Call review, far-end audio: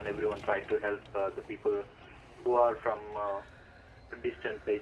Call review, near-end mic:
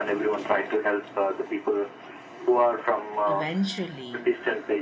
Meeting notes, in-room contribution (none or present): present